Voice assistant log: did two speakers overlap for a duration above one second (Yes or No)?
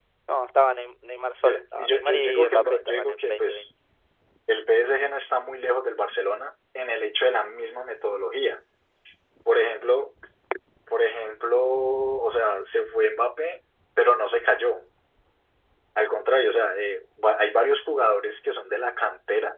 Yes